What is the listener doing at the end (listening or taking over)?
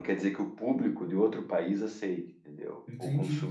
taking over